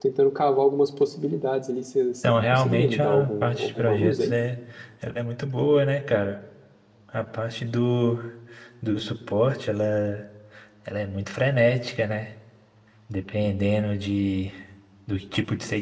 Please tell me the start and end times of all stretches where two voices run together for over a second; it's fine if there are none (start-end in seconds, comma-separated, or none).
2.2-4.4